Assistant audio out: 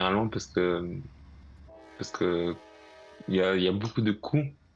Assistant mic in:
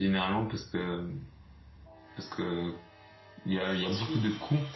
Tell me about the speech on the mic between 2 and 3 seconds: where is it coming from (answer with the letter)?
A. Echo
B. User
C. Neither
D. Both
A